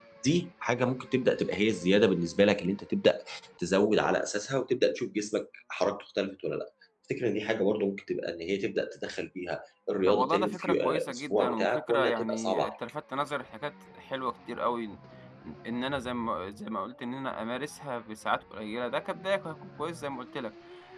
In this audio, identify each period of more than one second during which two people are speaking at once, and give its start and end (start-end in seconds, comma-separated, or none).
10.1-12.7